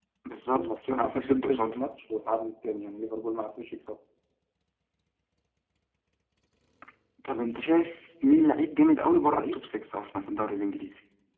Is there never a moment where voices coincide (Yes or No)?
No